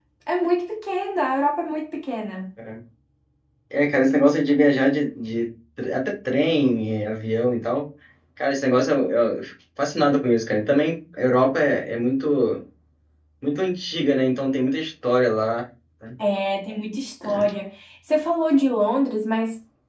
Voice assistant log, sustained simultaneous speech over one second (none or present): none